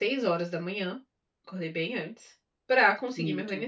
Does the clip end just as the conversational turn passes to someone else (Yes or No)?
No